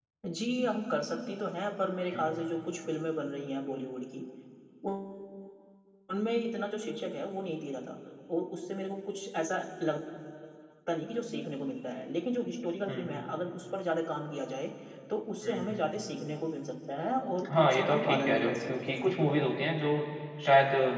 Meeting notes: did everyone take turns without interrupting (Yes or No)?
No